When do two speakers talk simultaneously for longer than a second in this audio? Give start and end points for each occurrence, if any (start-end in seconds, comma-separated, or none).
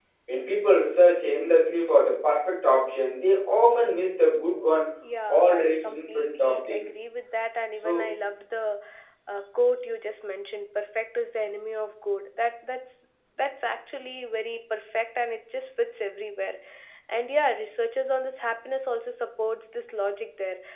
5.3-6.9